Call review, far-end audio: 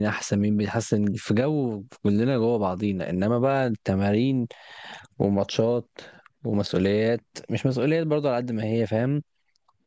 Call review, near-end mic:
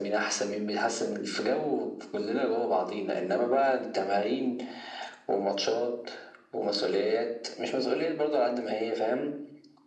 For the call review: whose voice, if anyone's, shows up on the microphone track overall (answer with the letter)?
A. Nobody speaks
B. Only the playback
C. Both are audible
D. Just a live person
B